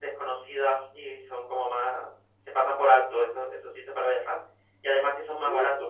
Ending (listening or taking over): listening